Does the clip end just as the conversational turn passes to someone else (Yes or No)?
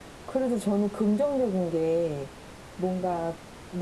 No